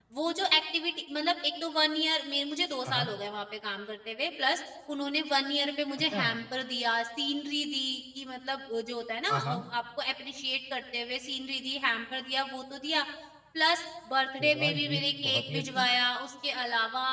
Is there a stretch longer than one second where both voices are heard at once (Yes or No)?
Yes